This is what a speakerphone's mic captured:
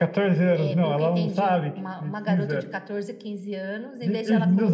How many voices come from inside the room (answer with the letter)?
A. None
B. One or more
A